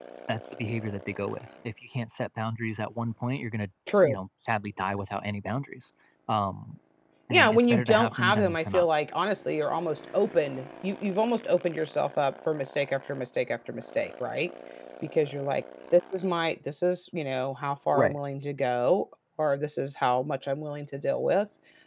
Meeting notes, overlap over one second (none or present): present